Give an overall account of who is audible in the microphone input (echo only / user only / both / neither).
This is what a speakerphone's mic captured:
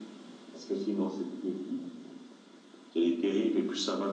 echo only